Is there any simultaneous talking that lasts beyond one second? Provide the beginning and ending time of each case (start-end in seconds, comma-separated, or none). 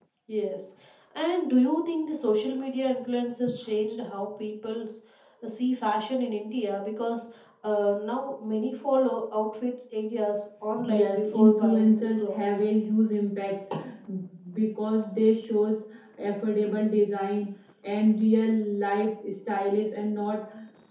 10.8-12.7